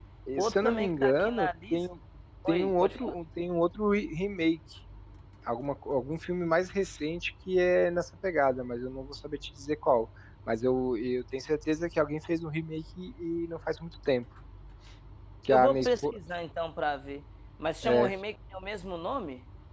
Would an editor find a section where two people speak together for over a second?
Yes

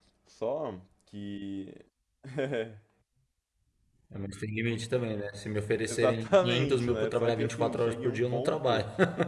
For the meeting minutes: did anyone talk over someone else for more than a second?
Yes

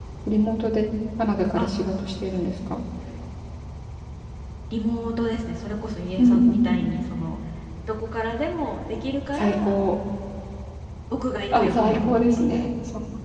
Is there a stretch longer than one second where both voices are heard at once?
Yes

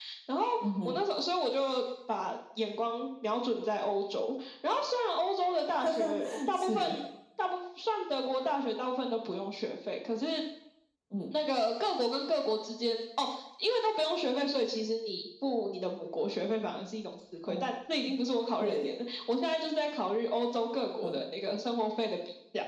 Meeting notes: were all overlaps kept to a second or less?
No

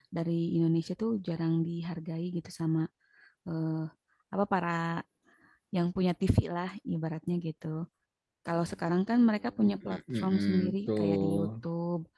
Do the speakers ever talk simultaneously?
Yes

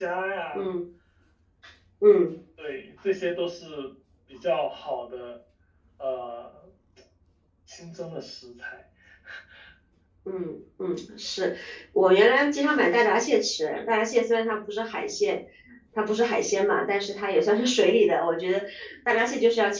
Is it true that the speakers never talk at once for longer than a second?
Yes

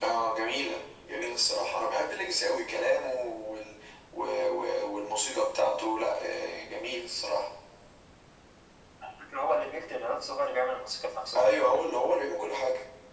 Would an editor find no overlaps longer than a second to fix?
Yes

